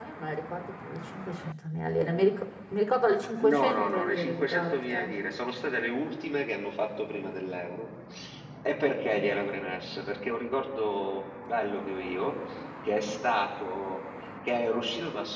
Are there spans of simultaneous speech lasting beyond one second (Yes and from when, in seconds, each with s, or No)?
Yes, from 3.4 s